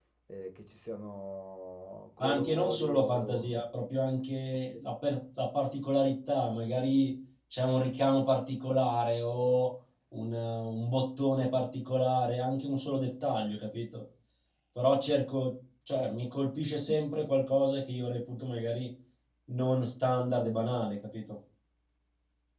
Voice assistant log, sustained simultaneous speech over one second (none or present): present